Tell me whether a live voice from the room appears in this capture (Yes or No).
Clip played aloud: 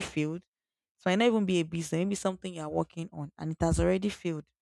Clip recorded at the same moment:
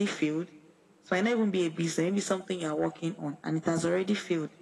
No